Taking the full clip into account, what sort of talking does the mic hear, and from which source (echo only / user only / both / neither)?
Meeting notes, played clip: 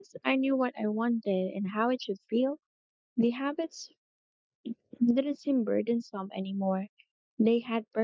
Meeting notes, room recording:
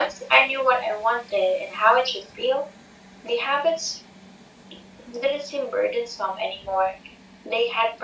echo only